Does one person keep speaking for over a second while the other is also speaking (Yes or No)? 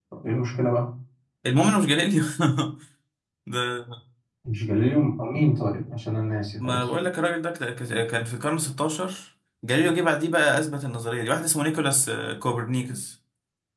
No